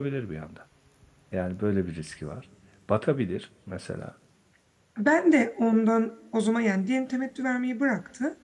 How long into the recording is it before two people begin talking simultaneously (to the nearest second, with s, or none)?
none